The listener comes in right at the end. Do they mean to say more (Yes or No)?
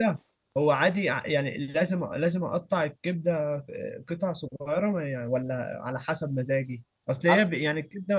No